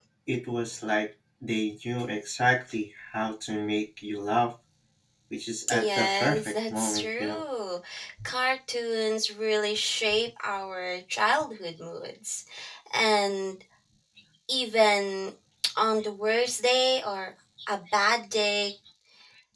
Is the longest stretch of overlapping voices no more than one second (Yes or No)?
No